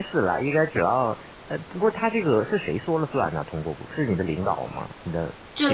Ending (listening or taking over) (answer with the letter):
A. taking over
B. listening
A